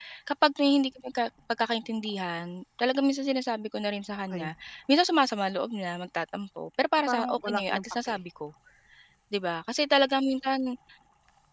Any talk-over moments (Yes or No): Yes